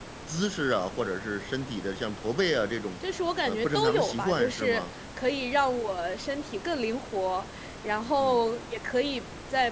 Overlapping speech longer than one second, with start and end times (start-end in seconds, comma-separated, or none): 3.4-4.8